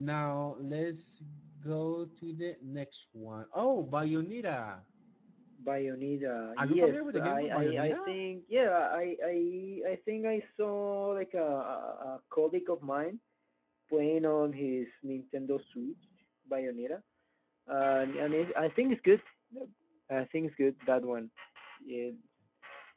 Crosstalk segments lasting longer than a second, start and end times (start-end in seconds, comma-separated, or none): 6.6-8.2